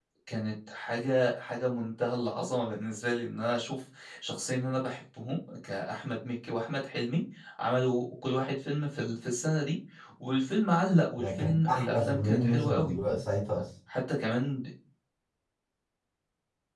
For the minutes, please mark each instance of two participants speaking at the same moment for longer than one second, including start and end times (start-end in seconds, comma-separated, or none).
11.2-12.9